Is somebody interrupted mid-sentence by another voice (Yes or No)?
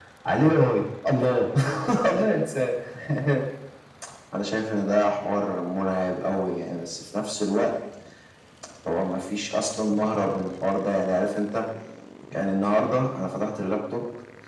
No